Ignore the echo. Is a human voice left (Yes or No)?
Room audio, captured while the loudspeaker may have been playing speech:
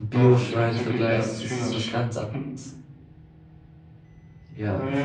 Yes